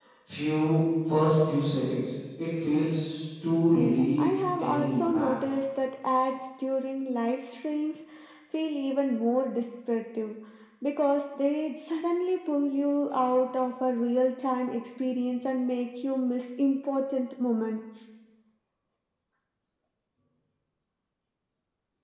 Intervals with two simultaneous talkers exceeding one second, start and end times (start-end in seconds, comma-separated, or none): 3.7-5.3